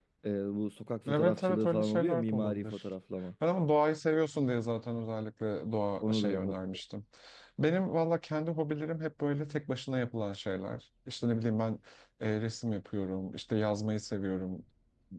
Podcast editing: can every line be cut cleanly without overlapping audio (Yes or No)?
No